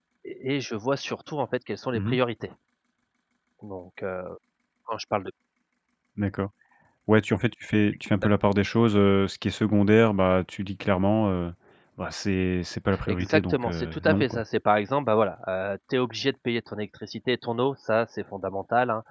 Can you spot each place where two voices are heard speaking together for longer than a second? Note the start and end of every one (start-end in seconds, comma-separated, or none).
13.1-14.4